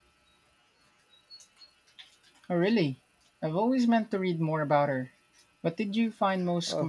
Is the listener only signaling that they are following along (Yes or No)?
No